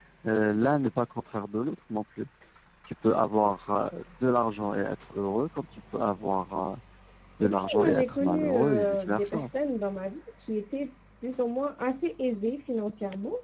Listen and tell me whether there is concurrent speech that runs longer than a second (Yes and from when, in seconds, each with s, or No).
Yes, from 7.4 s